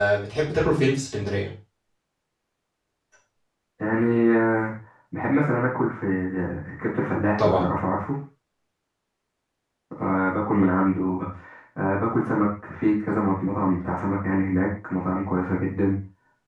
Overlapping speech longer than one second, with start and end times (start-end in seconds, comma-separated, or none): none